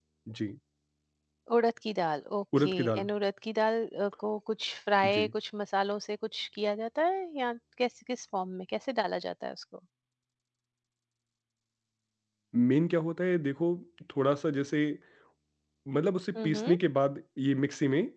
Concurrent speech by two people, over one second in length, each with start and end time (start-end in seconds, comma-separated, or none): none